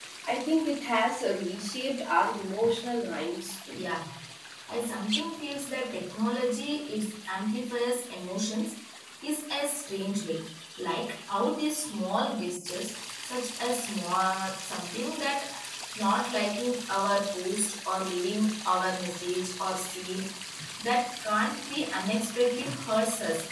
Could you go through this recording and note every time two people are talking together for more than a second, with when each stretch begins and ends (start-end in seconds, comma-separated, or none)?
none